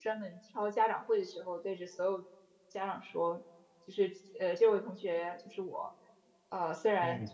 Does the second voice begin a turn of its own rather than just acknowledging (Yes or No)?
No